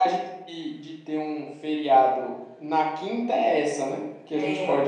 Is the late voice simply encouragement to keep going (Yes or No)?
Yes